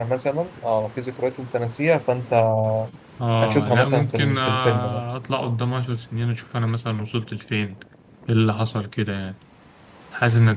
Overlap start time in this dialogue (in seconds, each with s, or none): 3.4 s